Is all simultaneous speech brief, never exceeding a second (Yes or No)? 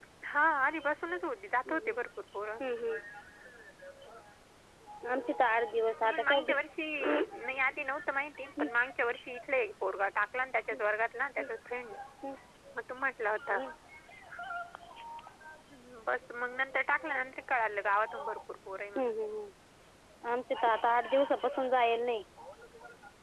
Yes